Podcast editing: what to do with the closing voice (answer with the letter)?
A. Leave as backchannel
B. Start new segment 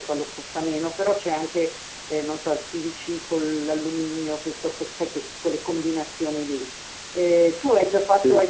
A